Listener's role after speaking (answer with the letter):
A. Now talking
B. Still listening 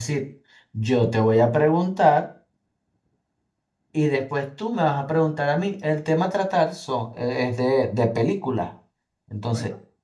B